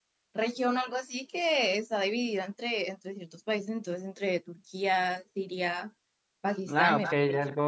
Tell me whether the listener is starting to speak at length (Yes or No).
Yes